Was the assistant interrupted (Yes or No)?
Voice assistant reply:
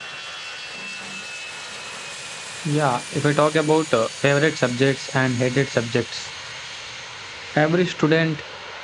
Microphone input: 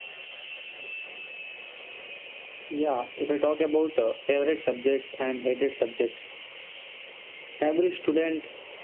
No